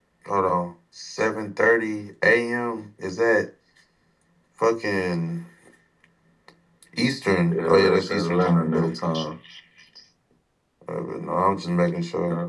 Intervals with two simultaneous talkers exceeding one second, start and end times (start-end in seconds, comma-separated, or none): 7.5-8.9